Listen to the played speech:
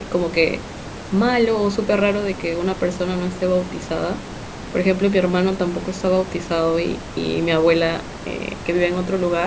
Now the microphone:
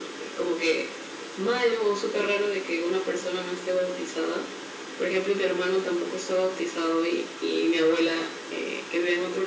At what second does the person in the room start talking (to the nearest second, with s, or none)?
none